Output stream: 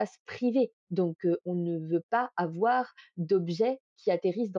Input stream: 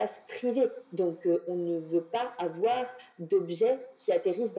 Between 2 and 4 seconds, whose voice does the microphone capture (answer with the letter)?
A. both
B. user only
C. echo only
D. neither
C